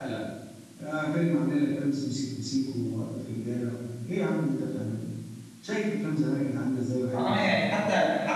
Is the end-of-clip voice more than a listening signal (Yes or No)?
Yes